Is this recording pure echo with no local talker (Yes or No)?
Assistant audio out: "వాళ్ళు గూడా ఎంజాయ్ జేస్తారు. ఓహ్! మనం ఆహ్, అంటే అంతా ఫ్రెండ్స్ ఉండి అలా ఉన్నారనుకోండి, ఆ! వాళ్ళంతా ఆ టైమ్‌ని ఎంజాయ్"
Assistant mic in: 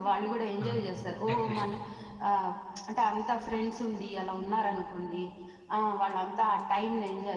No